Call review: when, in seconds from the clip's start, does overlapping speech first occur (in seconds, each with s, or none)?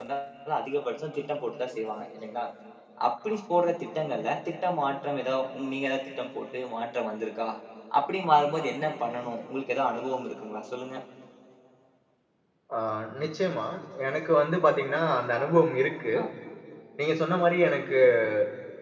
none